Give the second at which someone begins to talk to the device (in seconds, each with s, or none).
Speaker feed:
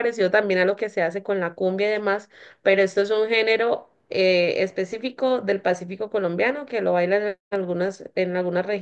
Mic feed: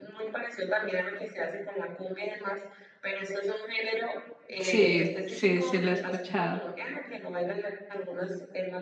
4.6 s